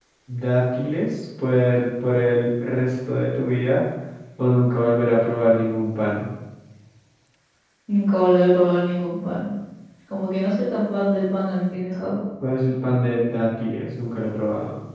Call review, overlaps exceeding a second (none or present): none